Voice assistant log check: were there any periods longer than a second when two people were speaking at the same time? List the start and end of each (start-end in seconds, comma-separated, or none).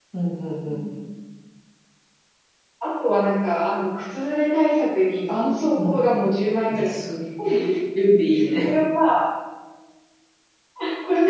none